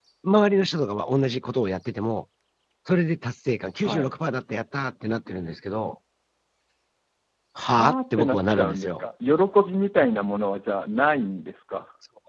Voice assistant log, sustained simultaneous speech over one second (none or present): present